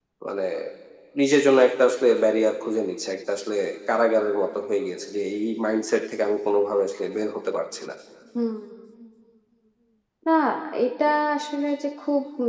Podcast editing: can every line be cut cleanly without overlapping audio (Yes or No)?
Yes